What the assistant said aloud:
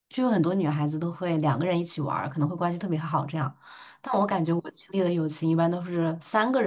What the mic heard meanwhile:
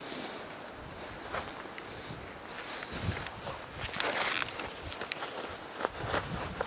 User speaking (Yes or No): No